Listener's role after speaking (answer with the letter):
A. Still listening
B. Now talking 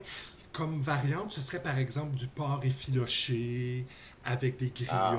A